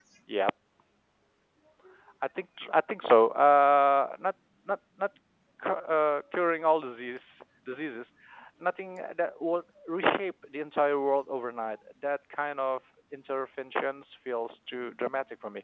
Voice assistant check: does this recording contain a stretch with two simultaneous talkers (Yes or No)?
No